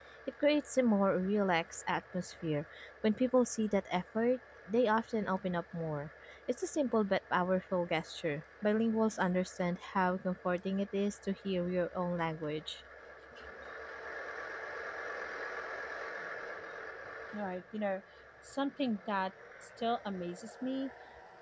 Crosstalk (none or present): none